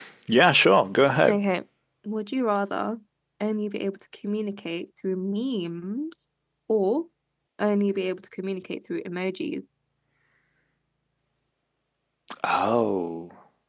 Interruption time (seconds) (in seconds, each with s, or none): none